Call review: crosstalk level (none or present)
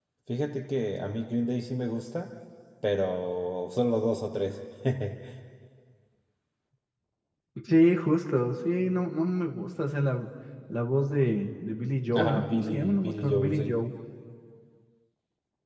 present